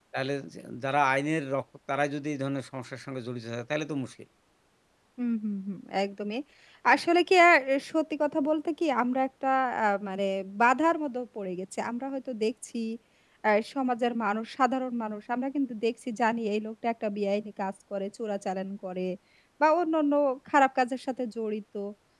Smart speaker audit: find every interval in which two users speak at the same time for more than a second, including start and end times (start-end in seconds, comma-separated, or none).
none